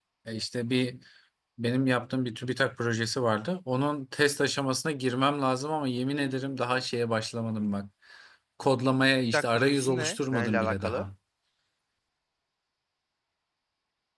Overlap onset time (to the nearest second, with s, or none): 9 s